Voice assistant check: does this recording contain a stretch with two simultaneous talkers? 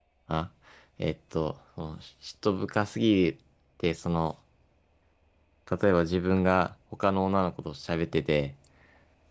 No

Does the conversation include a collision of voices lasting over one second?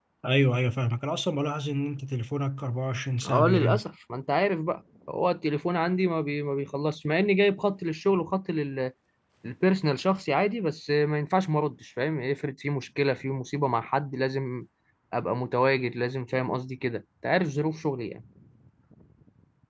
No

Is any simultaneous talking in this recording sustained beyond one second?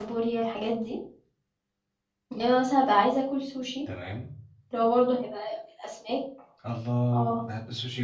No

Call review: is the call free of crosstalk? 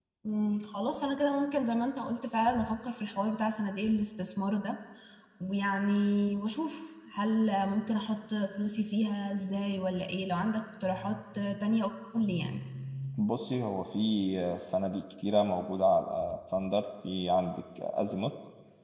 Yes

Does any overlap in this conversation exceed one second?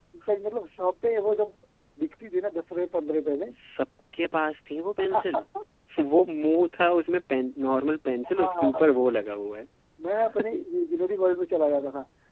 No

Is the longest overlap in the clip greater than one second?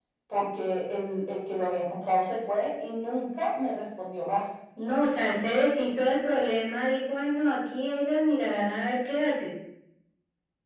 No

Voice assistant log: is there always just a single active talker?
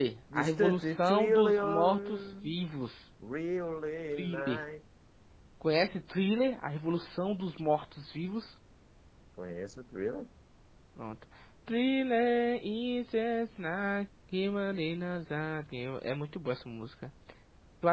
No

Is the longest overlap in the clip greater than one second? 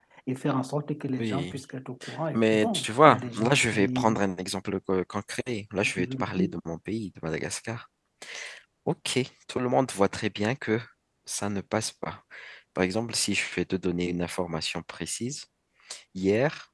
Yes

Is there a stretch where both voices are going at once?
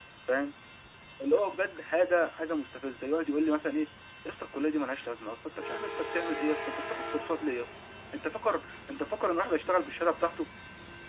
No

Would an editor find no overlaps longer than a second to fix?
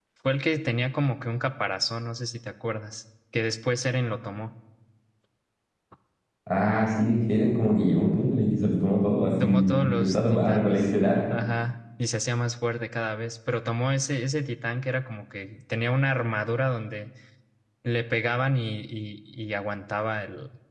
No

